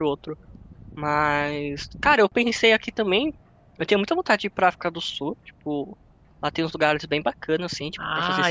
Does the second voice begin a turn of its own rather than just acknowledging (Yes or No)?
Yes